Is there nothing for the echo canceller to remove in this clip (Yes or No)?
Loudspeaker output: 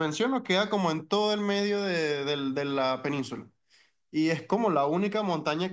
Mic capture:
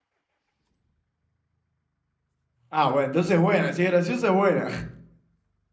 Yes